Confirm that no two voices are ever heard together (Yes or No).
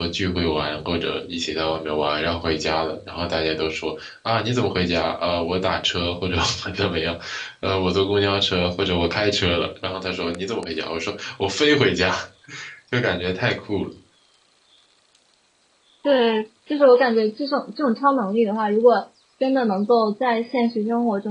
Yes